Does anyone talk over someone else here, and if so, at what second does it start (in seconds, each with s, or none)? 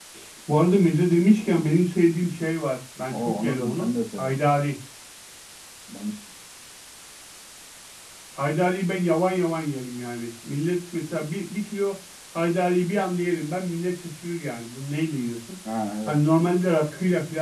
3.1 s